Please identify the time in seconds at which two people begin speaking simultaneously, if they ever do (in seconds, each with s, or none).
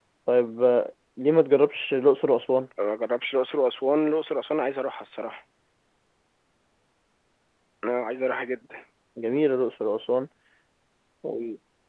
none